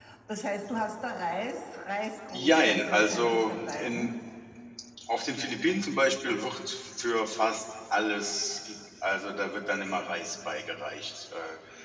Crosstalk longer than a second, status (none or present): present